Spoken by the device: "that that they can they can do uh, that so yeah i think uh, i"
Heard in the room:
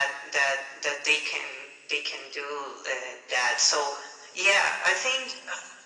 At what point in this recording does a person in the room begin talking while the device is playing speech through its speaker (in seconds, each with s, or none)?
none